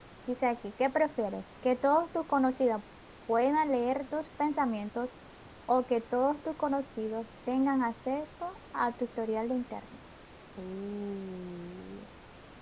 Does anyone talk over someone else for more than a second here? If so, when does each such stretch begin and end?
none

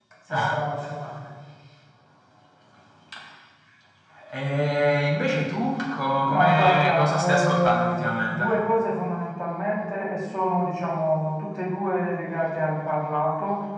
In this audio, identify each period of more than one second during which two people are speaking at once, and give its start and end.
6.3-8.6

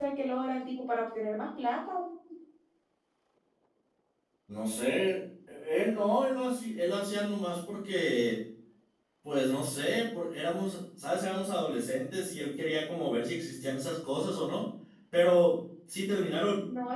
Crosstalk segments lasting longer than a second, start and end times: none

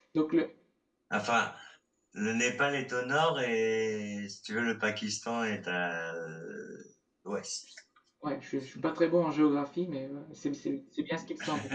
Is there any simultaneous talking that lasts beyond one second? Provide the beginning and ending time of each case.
none

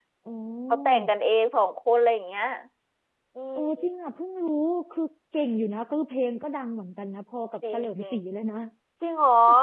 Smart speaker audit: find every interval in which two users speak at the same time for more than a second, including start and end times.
none

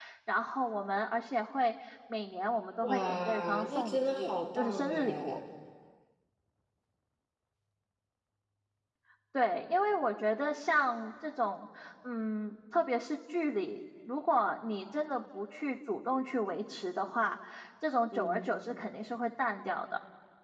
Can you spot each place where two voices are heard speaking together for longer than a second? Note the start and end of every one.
2.8-5.4

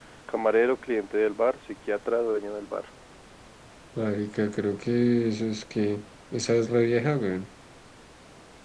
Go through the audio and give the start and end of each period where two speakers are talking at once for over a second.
none

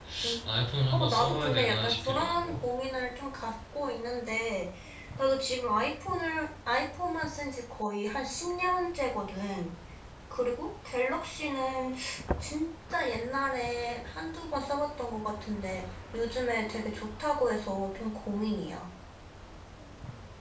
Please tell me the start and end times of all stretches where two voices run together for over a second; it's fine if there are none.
0.9-2.5

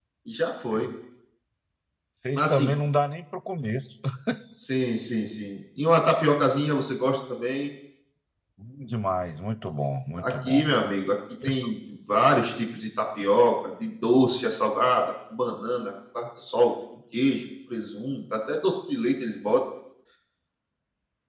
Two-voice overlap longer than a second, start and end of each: none

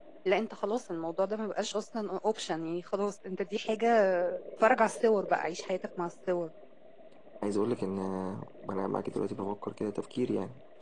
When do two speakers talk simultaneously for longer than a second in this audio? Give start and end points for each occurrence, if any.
none

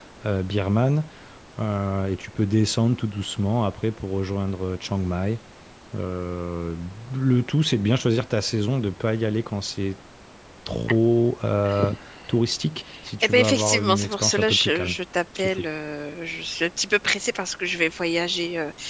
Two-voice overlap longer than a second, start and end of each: 13.2-14.9

